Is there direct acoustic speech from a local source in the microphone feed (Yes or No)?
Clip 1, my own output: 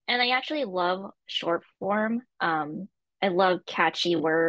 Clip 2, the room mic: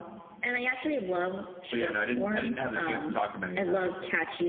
Yes